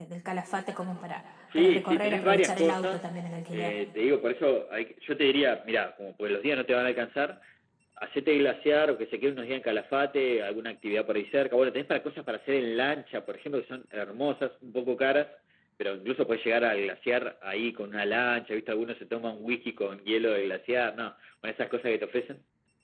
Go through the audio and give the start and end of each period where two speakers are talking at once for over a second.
1.6-3.0

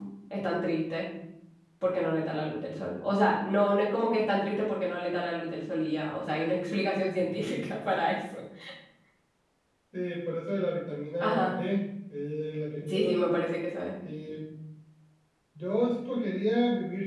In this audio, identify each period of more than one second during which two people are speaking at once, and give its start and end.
none

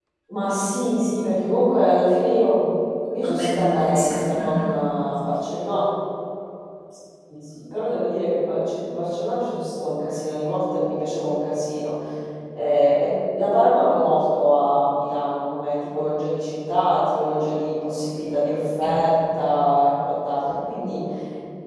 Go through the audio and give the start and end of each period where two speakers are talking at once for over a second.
3.2-4.7

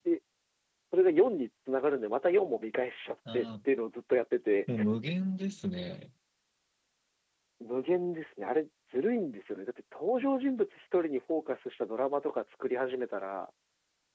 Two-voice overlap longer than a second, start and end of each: none

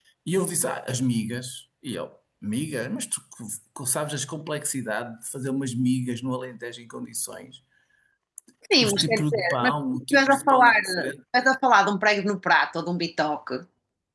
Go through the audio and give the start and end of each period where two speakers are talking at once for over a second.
8.8-11.1

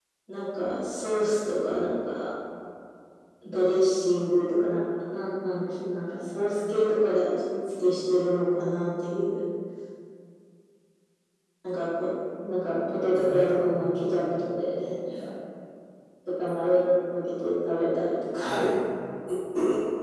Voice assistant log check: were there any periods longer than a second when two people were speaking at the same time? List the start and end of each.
13.1-14.4

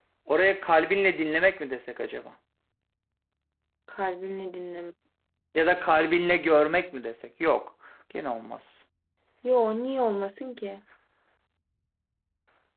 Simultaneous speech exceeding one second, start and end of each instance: none

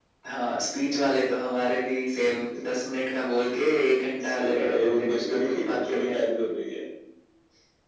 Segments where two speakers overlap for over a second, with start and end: 4.2-6.2

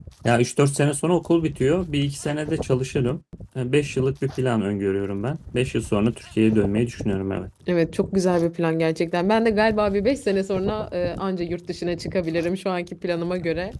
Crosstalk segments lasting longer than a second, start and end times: none

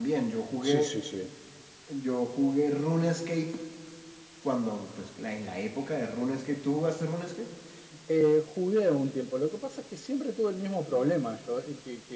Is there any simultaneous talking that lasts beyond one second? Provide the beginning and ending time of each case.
none

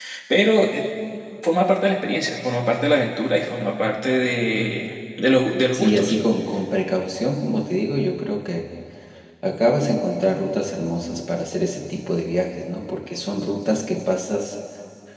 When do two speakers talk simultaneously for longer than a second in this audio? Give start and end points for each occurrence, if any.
none

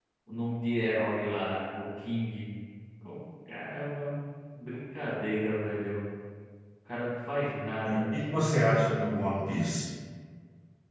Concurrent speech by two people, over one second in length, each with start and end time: none

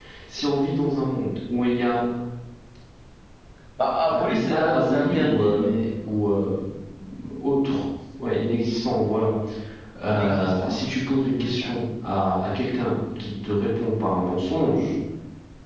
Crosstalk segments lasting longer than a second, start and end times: 4.1-5.7, 10.1-11.7

